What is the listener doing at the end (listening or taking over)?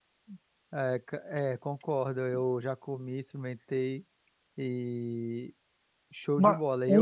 taking over